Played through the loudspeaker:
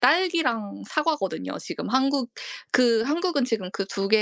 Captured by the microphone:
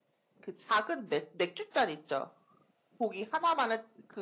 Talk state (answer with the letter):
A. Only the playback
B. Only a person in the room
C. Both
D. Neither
B